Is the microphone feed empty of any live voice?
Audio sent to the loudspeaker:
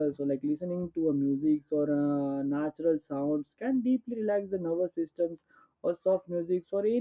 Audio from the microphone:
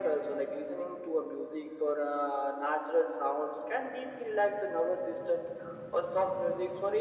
Yes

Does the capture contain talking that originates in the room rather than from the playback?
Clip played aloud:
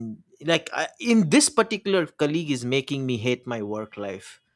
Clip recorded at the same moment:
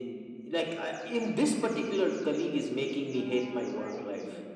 Yes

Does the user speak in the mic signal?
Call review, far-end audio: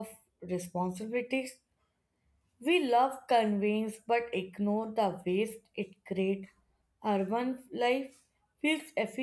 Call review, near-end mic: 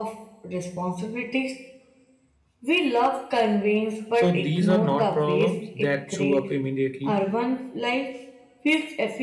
Yes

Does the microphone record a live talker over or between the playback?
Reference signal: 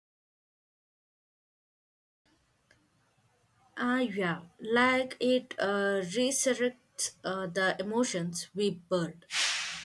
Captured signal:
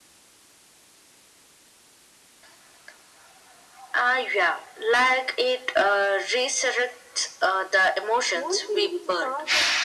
Yes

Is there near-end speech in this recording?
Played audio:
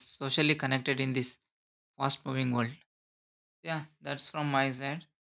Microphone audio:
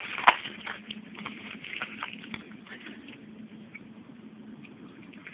No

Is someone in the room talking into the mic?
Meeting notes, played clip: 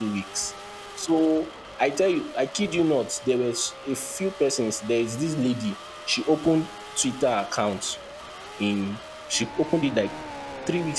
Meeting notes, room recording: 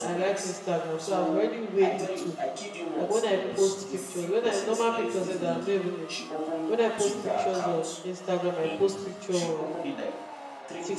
Yes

